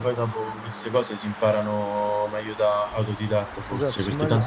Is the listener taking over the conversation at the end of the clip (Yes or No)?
Yes